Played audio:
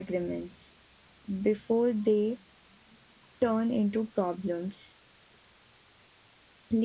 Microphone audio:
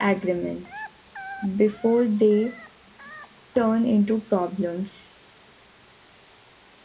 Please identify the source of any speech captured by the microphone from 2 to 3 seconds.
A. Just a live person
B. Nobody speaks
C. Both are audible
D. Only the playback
D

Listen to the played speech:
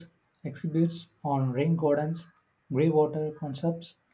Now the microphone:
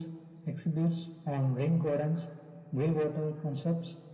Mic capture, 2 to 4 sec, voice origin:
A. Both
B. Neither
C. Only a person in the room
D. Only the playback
D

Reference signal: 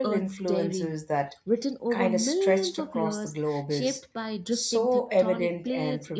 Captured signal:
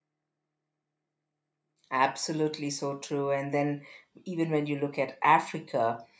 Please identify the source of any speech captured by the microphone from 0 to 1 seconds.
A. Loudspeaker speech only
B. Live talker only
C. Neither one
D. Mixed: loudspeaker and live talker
C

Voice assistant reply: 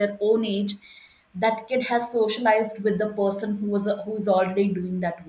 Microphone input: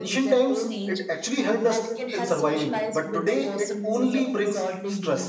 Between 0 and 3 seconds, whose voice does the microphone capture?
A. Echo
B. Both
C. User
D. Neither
B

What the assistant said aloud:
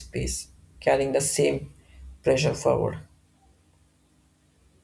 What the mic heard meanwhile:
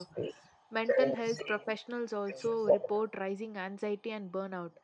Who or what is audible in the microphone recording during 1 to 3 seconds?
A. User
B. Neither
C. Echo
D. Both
D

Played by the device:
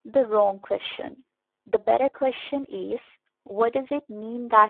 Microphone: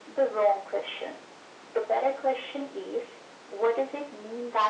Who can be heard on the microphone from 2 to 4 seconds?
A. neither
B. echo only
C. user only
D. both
B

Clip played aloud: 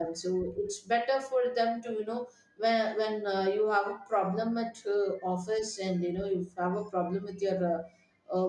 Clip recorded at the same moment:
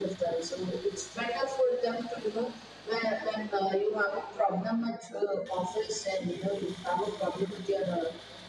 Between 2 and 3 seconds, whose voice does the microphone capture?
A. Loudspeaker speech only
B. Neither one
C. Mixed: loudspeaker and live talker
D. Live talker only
A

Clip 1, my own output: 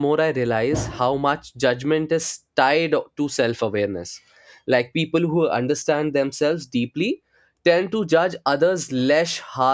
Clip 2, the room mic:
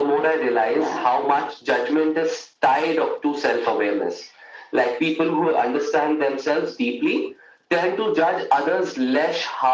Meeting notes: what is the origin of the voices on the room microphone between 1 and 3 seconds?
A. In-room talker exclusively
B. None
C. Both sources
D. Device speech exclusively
D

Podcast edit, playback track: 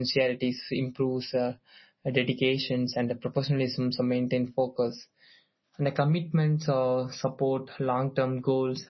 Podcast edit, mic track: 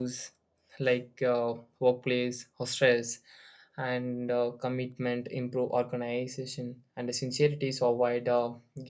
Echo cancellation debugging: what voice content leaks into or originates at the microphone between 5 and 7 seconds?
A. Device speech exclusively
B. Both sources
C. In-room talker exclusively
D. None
C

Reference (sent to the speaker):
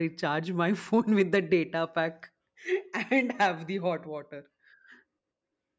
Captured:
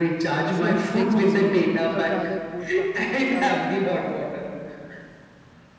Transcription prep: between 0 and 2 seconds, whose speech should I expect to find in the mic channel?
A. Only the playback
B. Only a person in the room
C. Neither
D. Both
D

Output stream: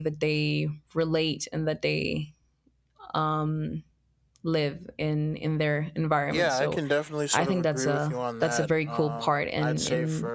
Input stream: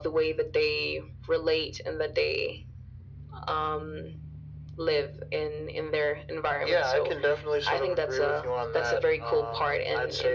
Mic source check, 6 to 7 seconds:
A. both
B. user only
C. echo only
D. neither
C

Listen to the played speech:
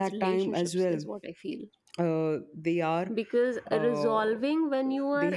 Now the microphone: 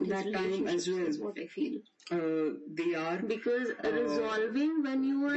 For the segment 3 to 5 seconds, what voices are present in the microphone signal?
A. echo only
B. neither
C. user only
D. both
A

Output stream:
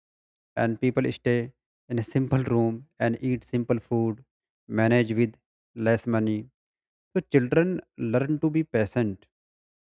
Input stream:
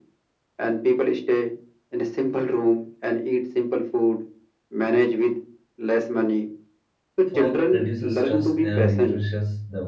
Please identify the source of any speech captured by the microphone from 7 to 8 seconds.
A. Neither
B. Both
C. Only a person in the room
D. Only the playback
B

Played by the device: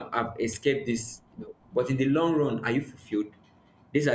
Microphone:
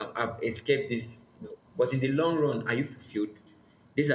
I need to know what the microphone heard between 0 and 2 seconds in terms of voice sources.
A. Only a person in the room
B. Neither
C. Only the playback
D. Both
C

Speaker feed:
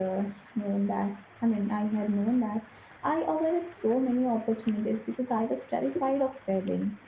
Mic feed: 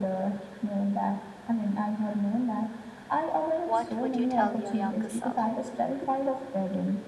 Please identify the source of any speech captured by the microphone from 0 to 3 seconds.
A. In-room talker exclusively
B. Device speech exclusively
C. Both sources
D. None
B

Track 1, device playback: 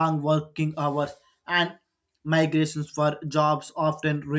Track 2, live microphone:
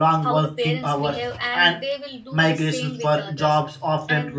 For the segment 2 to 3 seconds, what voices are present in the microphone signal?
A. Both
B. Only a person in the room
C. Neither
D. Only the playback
A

